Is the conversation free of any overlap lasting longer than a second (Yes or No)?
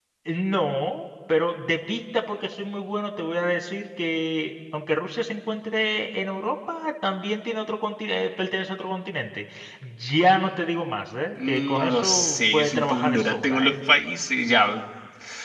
No